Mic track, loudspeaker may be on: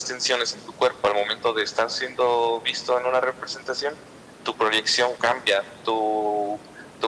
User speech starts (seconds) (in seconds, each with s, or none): none